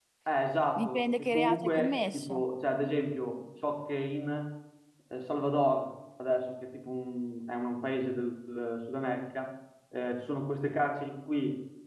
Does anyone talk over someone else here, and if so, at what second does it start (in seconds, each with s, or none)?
0.8 s